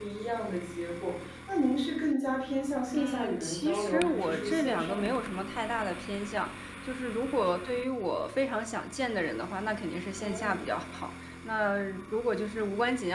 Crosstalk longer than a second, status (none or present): present